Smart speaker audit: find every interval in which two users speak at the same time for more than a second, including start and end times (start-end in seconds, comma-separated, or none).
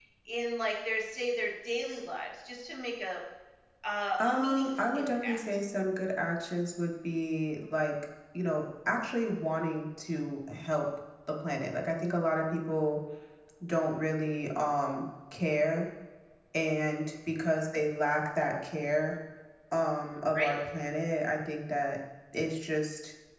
4.2-5.4